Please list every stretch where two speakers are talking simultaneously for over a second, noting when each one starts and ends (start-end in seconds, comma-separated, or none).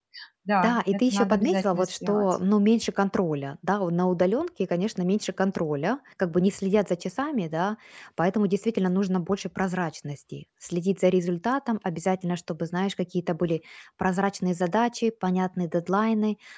0.6-2.3